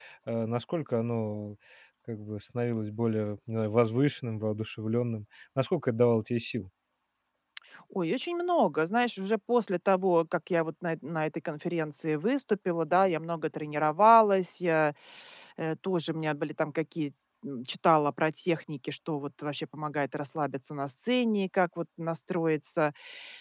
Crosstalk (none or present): none